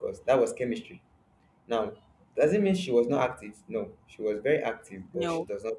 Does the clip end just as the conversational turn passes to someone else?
No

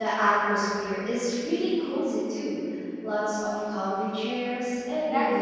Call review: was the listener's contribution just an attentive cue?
No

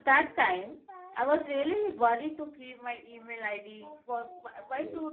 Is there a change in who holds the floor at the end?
No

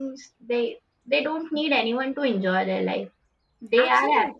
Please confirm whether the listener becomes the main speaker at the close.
No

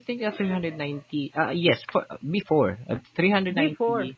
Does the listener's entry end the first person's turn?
No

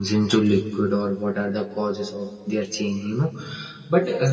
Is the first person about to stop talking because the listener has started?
No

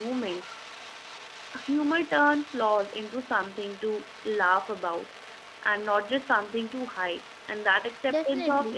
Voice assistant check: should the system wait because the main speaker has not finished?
Yes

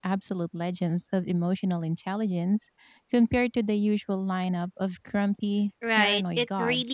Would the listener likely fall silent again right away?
No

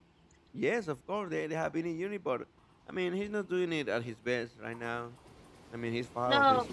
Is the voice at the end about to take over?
Yes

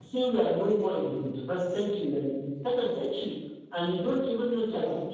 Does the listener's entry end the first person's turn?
No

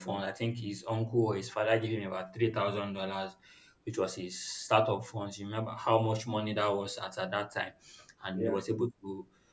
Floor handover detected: No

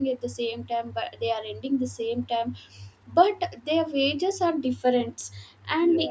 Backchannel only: Yes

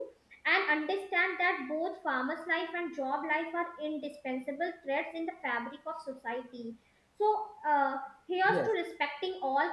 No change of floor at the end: Yes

